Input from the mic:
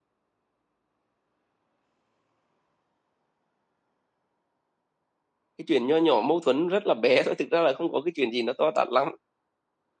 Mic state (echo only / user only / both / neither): user only